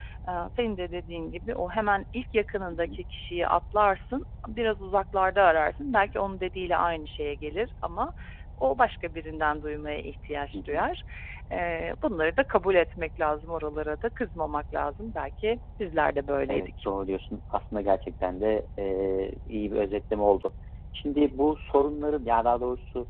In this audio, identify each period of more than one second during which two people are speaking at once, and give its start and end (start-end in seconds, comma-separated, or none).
none